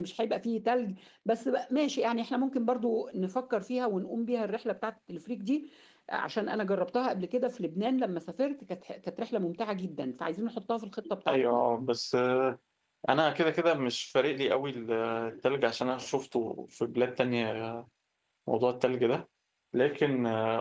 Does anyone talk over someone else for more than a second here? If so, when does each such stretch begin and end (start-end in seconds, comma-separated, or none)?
none